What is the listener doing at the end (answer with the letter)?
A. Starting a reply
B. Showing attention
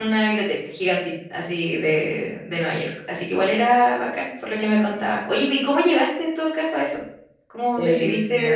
A